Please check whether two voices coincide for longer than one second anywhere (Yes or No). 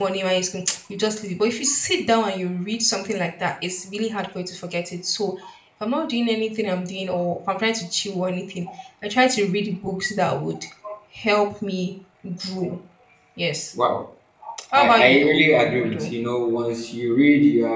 Yes